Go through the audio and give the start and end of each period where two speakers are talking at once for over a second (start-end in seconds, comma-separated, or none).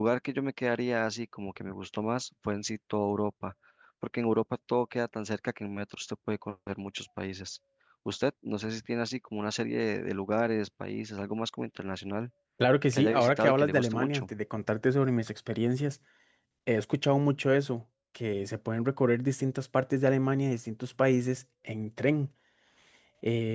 12.9-14.2